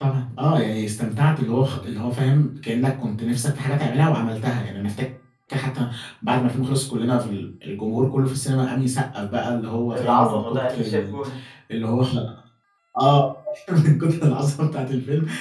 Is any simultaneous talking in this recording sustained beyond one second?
Yes, from 9.9 s

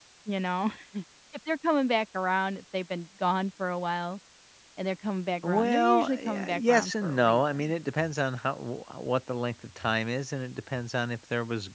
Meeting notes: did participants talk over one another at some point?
Yes, from 5.4 s

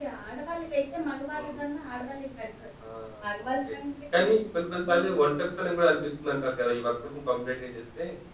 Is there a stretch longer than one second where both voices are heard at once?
No

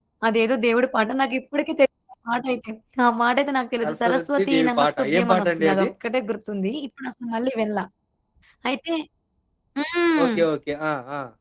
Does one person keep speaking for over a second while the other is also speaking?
Yes, from 3.8 s

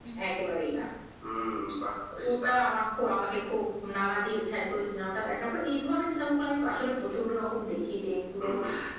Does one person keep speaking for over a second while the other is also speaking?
No

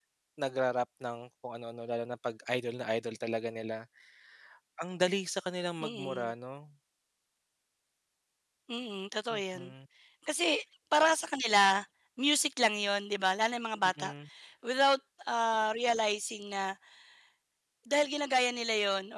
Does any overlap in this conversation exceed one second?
No

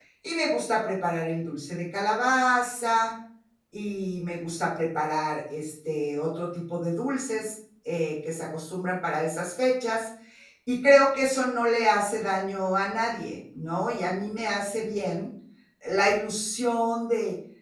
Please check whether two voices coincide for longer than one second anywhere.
No

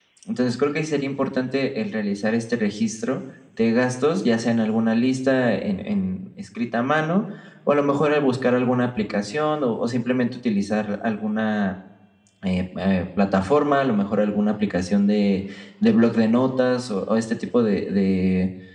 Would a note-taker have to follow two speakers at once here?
No

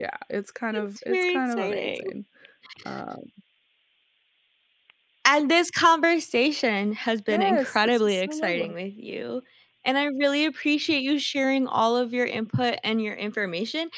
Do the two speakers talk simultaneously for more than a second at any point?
Yes, from 0.7 s

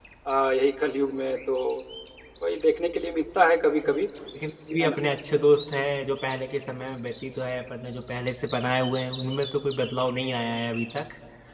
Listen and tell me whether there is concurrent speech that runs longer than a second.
No

